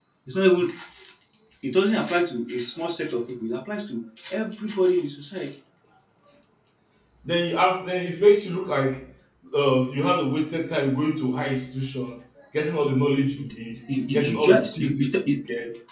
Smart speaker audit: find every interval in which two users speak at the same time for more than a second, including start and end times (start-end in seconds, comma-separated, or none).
14.1-15.3